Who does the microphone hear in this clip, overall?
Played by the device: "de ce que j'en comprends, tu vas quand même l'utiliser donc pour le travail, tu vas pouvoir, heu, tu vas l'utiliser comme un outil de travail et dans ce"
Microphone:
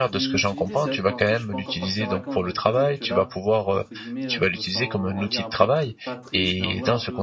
both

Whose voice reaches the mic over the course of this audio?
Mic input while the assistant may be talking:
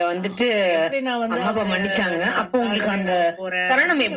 echo only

